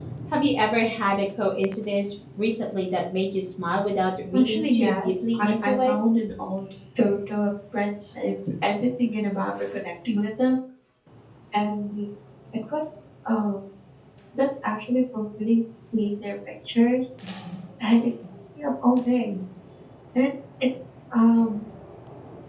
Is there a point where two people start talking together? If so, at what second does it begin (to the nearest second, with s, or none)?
4 s